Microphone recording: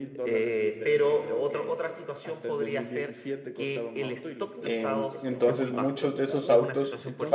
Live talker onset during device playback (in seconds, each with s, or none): 4.6 s